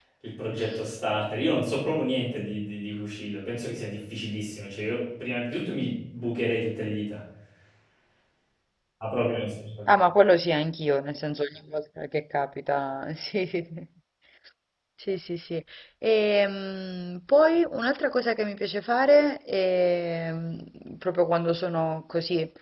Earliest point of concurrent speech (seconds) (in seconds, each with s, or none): none